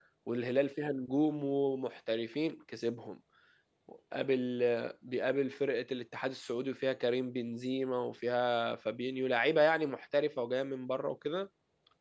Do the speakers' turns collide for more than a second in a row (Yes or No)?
No